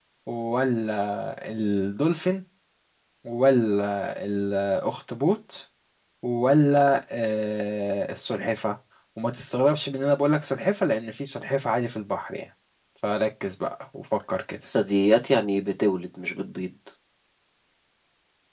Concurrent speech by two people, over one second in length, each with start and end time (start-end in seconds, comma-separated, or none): none